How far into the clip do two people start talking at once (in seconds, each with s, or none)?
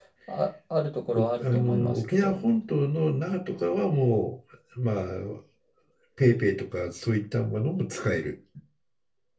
1.1 s